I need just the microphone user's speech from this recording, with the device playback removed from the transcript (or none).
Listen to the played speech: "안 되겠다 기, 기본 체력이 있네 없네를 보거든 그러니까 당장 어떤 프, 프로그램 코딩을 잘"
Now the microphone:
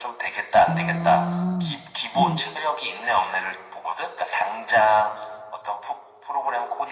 아, 음.